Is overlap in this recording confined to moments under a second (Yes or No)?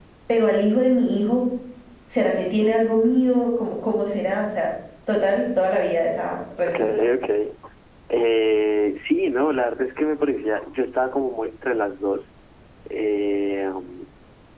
Yes